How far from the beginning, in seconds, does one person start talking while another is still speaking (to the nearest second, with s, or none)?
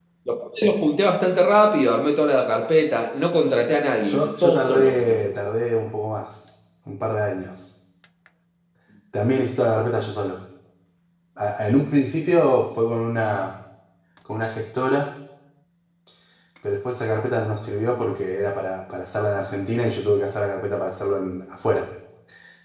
4 s